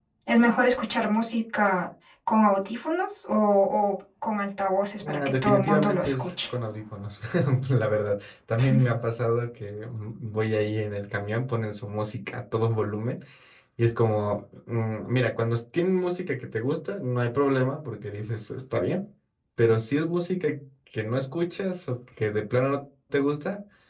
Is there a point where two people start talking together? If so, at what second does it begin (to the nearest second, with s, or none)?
5 s